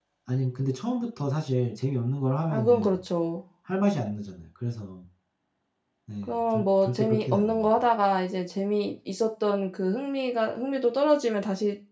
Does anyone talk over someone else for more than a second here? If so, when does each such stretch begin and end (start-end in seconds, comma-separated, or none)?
6.2-7.7